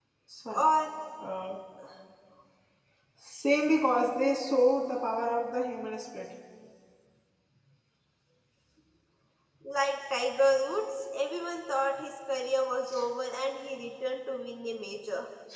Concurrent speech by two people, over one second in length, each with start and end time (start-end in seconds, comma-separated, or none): none